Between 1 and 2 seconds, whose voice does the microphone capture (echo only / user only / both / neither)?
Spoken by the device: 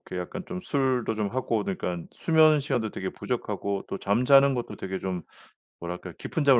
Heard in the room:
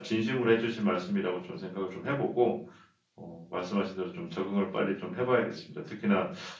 user only